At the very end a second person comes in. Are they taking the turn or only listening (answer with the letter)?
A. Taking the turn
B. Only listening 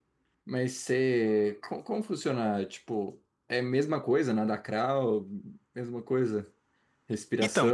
A